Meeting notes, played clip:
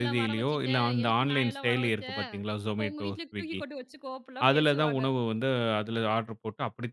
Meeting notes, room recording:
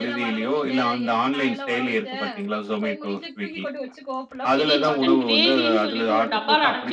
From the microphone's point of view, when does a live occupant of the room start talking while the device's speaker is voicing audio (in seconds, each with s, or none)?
4.6 s